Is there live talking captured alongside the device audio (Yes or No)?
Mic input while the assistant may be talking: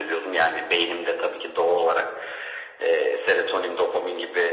No